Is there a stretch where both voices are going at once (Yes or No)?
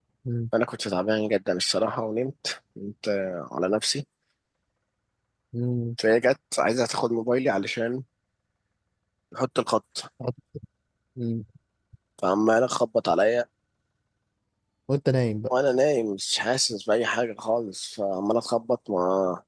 No